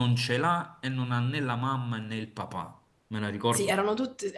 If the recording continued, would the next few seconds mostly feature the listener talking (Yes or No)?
Yes